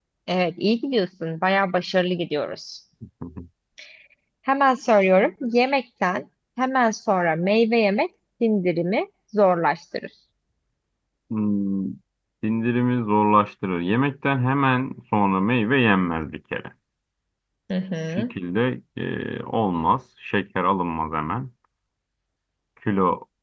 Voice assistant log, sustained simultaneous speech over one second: none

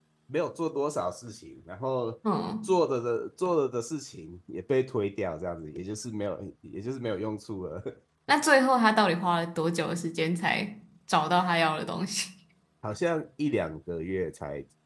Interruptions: none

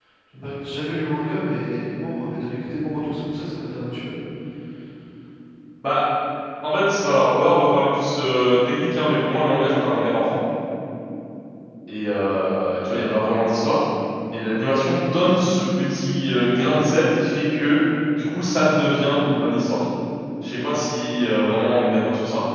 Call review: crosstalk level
none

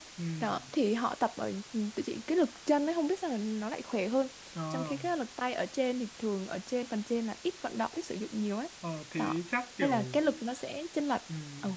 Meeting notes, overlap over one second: none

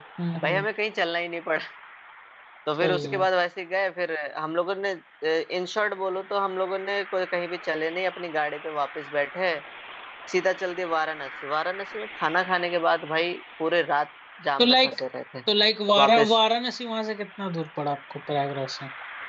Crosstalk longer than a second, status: none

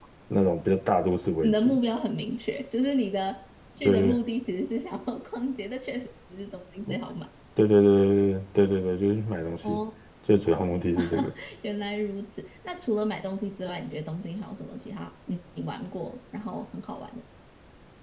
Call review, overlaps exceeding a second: none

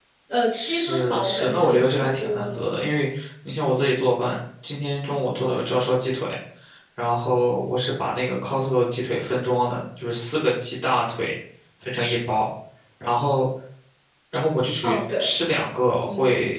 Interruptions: present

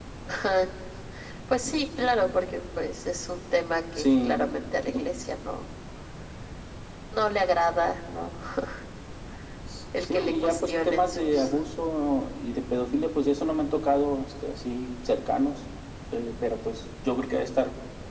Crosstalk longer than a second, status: present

